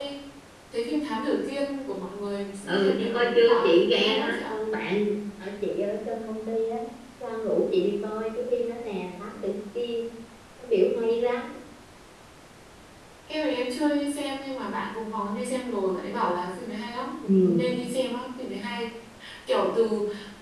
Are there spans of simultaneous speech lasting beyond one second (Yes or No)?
Yes